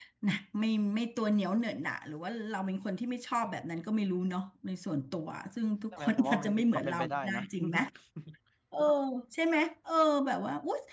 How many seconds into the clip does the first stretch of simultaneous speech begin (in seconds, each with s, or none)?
5.9 s